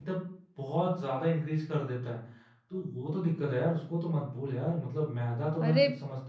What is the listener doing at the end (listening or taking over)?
listening